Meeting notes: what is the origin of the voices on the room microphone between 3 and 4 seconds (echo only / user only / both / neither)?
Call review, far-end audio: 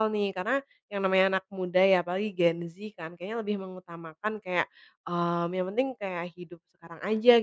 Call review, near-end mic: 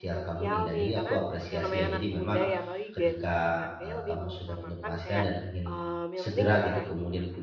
both